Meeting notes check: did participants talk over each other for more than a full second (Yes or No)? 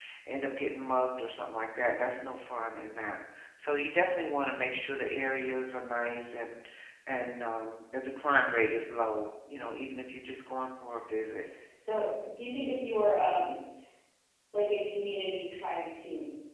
No